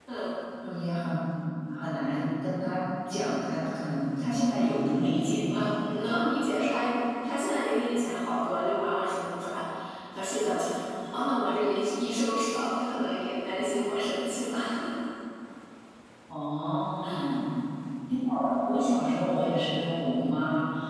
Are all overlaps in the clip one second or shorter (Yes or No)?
Yes